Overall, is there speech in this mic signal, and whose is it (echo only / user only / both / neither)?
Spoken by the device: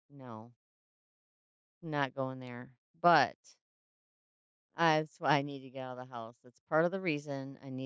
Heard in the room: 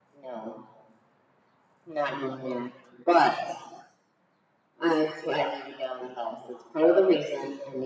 echo only